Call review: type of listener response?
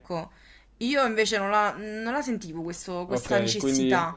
taking over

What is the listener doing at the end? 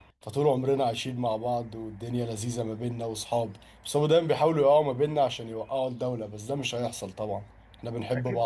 taking over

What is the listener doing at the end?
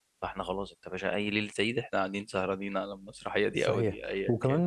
taking over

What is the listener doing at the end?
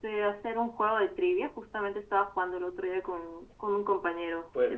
taking over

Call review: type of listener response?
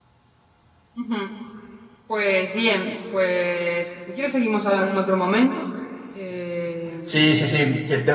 taking over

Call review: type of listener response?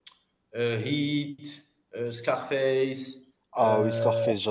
taking over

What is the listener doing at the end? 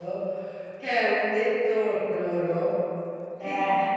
listening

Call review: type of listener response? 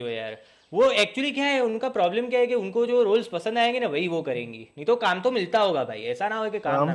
taking over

